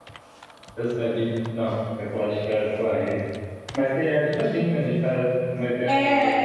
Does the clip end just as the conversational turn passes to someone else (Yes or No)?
Yes